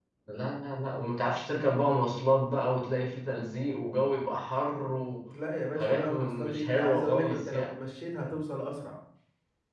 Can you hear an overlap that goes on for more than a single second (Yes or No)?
Yes